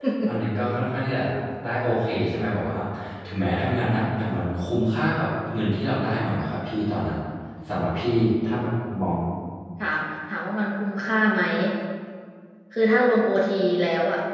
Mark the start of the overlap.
none

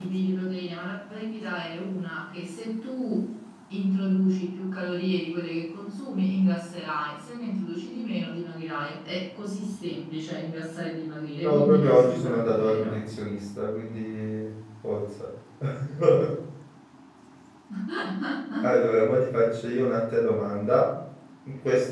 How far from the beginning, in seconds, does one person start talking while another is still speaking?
11.4 s

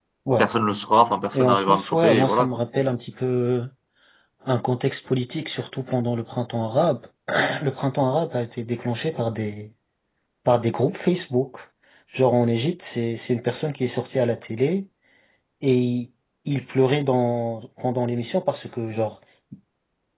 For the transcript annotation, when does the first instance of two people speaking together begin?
1.3 s

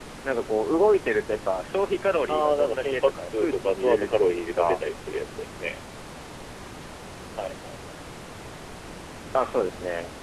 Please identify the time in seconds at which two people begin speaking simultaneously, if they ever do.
2.3 s

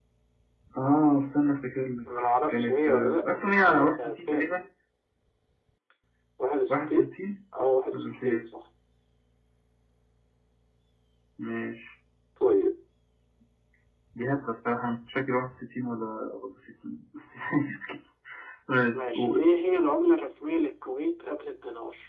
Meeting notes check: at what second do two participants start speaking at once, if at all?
2.2 s

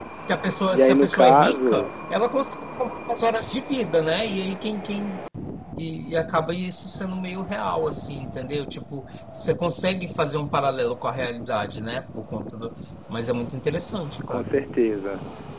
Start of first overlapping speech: 0.7 s

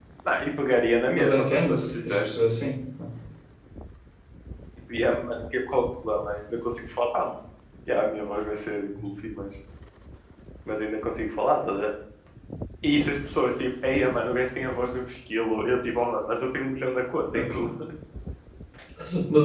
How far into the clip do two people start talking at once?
1.1 s

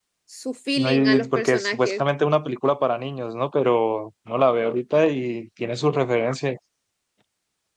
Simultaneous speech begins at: 0.8 s

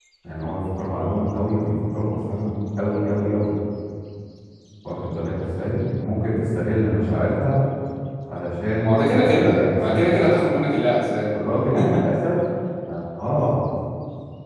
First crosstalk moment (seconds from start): 8.8 s

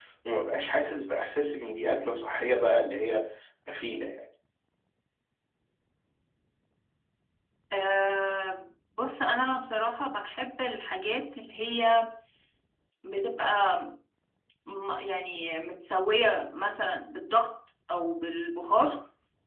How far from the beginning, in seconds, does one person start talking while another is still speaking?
none

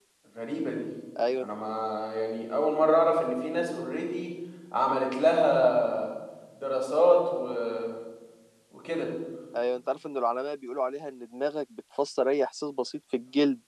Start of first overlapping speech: none

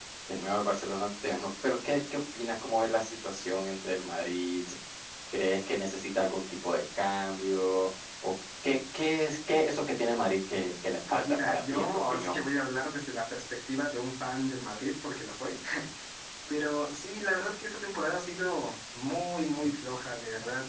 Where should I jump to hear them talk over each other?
11.1 s

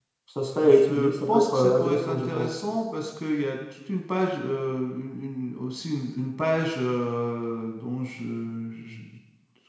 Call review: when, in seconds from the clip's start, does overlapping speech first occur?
0.6 s

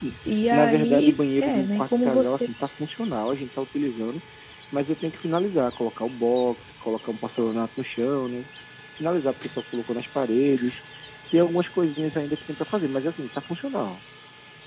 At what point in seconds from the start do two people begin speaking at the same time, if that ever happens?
0.5 s

